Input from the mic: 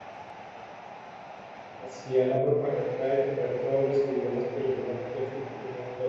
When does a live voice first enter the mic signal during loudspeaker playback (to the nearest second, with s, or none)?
2 s